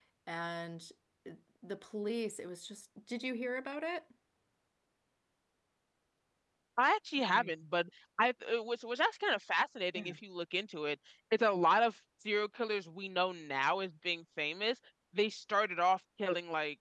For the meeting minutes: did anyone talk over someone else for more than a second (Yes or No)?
No